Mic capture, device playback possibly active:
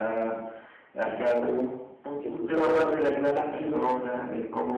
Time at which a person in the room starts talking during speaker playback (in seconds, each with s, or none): 2.2 s